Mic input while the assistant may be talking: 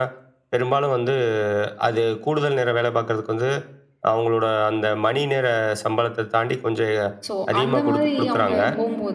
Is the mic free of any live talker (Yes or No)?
No